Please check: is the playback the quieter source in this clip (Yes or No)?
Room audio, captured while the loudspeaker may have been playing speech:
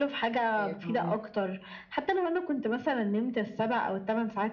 No